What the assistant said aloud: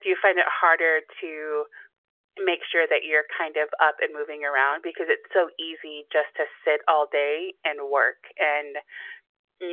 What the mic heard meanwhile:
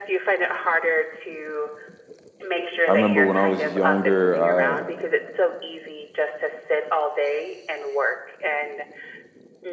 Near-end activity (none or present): present